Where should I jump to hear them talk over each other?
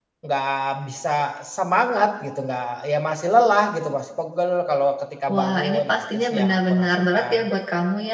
5.3 s

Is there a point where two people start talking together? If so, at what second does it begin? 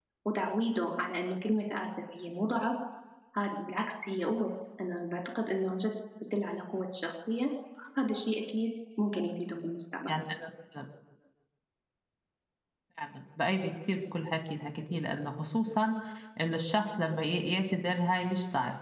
none

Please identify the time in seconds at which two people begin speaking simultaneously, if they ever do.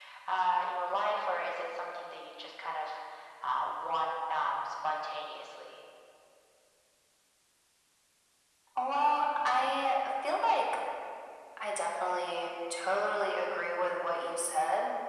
none

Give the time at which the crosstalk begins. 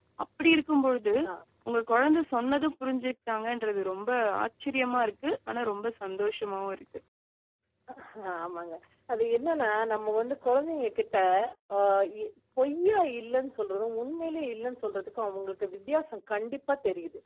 none

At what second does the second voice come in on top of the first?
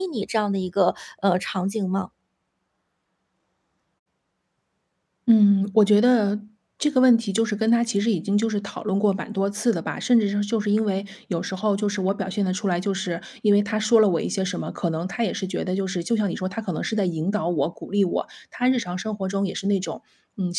none

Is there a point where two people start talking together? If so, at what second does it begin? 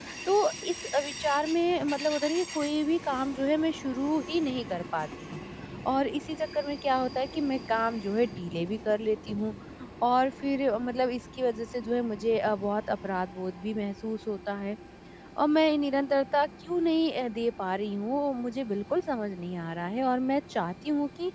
none

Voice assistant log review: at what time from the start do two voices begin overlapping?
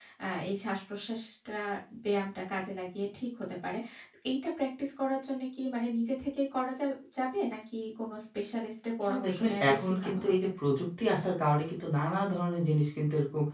9.0 s

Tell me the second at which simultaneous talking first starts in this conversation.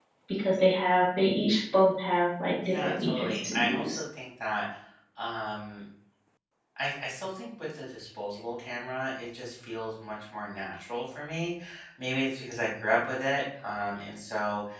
2.6 s

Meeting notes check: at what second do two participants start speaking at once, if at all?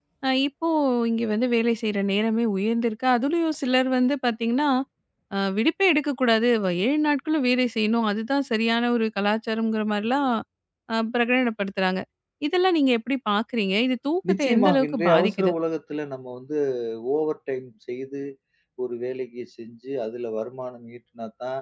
14.2 s

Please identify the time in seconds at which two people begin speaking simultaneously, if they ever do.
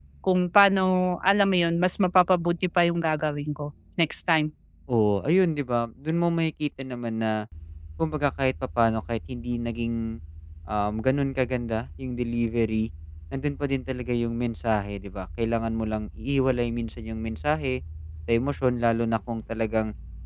none

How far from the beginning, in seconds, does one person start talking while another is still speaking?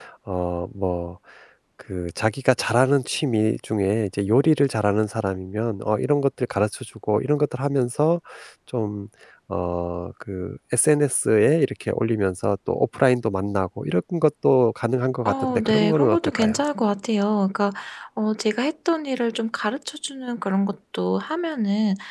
15.2 s

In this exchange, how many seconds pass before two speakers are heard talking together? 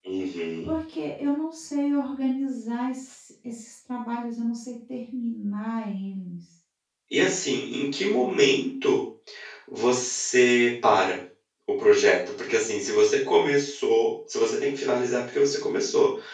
none

